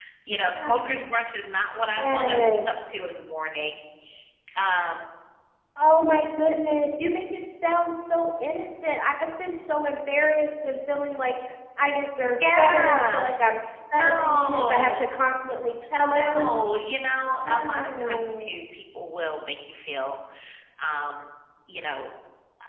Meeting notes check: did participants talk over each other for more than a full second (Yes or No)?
Yes